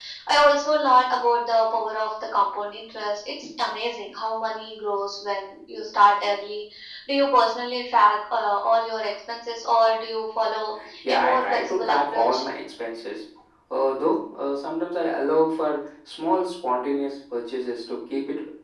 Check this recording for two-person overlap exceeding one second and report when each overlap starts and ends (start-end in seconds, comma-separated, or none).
11.0-12.4